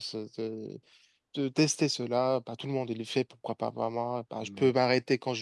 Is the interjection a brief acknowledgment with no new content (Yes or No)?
Yes